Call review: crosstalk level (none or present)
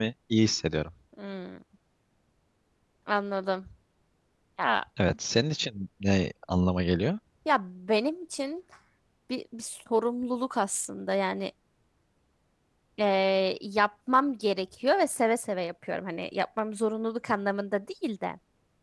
none